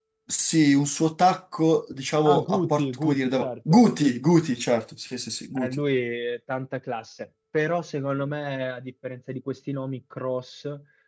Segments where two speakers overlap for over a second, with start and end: 2.2-3.8

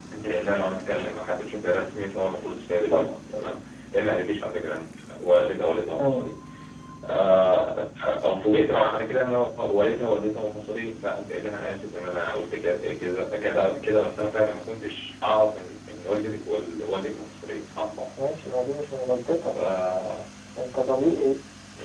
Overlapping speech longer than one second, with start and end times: none

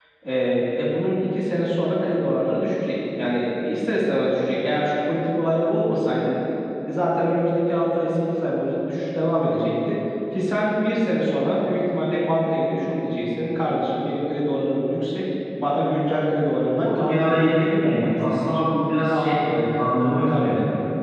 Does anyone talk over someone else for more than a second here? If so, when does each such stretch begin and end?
16.7-18.4

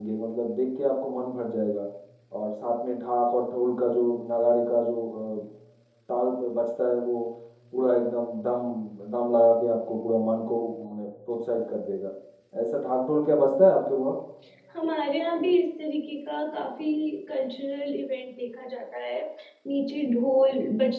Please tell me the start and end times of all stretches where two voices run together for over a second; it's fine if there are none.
none

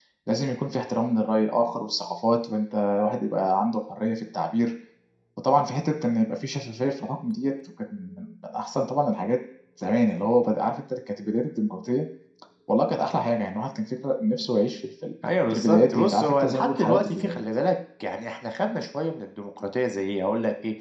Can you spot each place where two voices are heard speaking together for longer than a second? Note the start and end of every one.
15.5-17.4

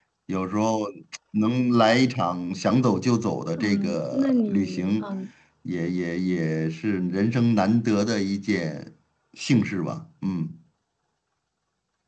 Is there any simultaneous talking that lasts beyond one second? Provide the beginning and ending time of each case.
3.6-5.0

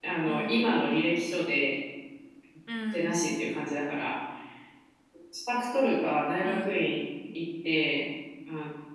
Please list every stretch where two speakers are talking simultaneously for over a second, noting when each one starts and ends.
none

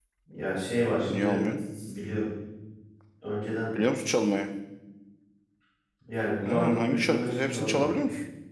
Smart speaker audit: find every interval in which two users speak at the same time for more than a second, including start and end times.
6.5-7.9

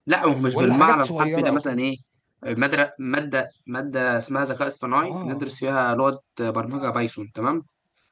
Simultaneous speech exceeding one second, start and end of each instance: 0.5-1.8

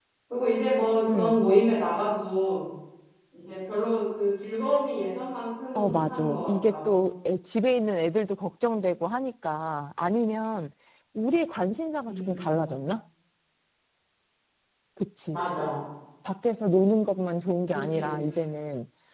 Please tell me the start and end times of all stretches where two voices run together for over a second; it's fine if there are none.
5.8-7.0

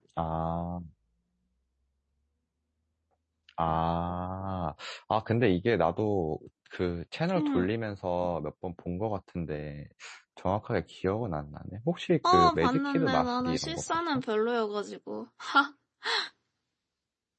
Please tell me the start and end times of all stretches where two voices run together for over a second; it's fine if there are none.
12.2-14.0

